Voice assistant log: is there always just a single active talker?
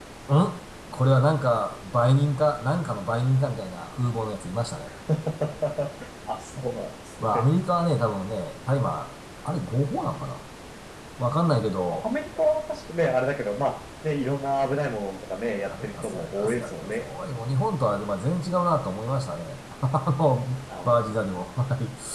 No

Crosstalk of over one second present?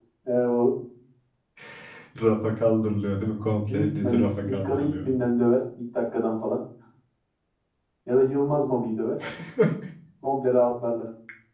Yes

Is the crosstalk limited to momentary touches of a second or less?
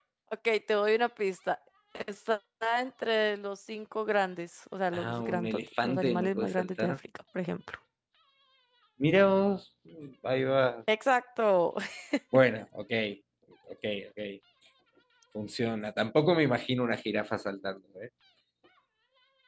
No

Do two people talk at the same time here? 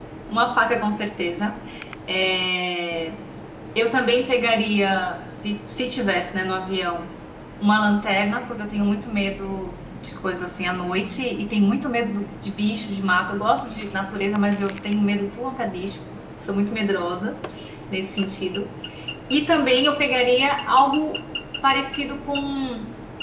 No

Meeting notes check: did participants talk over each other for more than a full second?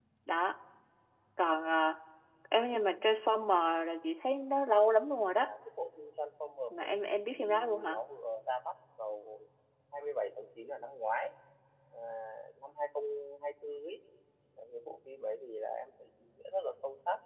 Yes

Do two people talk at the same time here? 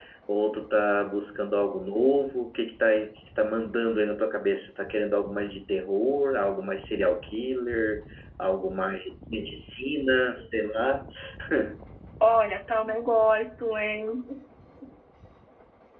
No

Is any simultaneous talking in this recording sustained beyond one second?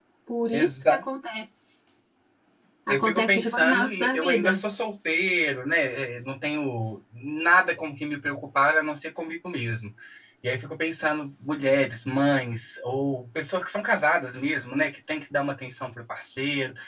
Yes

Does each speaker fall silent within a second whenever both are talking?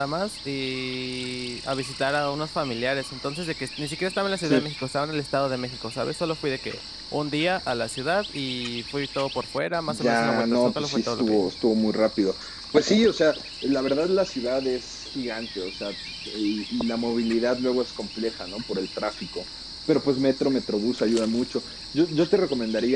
No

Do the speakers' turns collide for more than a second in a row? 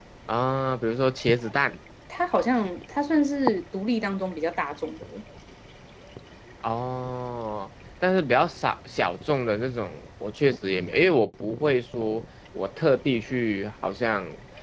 No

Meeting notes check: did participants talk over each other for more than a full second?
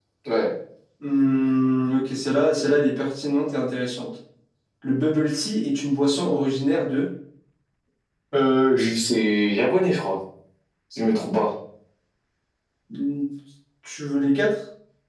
No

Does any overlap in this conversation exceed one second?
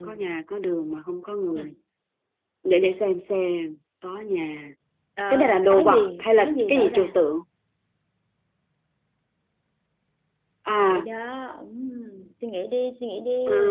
Yes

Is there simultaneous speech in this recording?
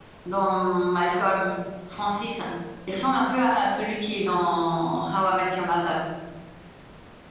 No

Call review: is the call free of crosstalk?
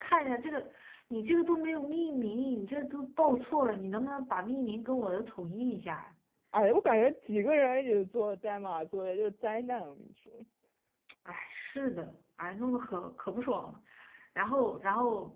Yes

